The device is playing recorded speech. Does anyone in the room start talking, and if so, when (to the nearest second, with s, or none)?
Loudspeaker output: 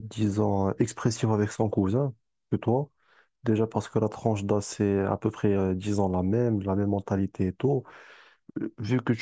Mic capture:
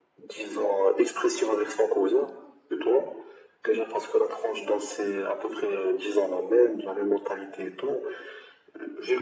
none